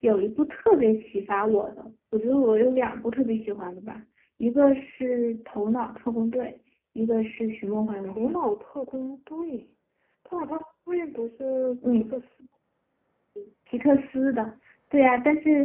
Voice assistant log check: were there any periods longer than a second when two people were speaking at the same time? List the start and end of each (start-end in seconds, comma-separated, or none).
none